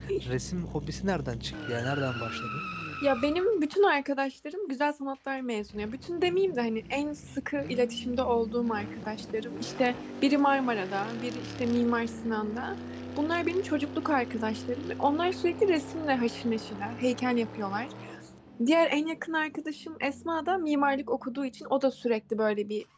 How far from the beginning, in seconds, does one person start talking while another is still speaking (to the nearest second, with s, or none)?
none